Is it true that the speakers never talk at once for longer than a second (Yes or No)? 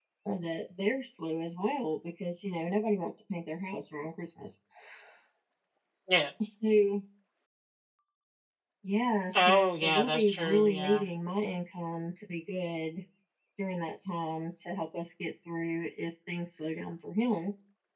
No